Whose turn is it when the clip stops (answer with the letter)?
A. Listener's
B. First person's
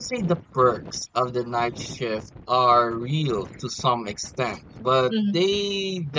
B